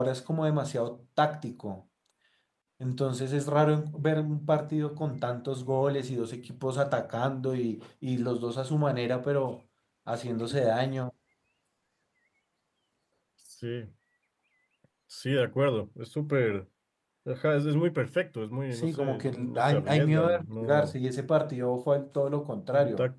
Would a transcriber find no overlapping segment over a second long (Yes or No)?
No